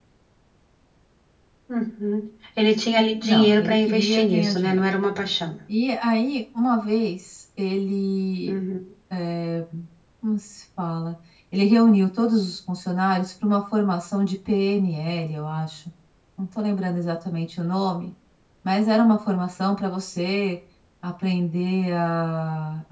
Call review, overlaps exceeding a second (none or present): present